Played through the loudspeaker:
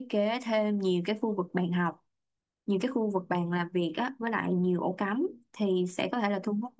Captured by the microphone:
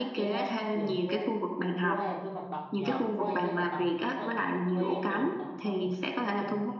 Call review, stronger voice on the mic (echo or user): echo